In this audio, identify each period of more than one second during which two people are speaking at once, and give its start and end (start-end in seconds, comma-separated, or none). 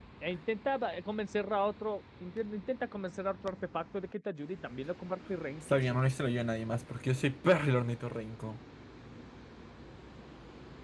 none